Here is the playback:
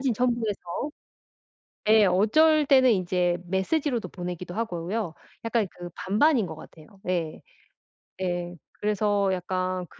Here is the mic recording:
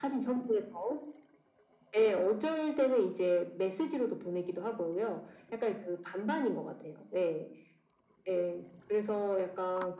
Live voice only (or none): none